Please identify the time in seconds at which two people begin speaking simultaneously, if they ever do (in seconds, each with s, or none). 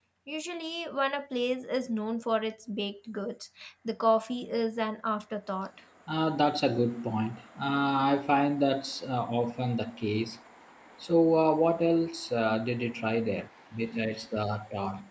none